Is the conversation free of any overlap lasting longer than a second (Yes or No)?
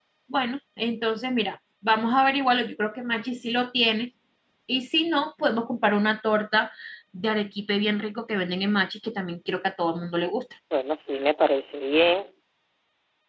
Yes